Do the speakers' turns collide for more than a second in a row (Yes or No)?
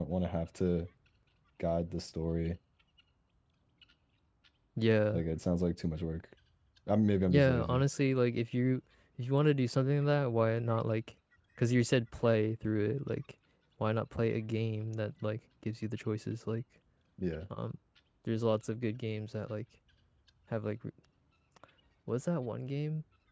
No